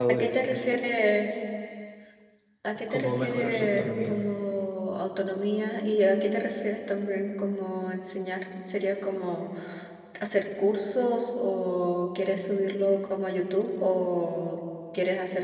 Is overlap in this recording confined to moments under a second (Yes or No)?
No